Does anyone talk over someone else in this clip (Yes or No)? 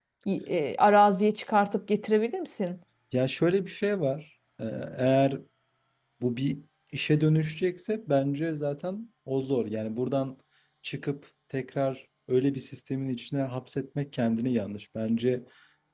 No